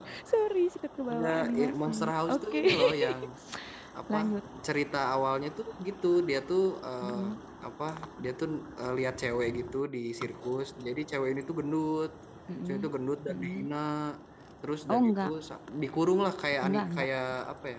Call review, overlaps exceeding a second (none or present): present